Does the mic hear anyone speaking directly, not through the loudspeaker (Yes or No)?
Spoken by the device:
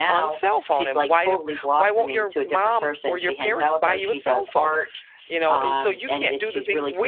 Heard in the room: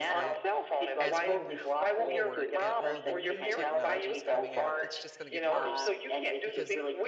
Yes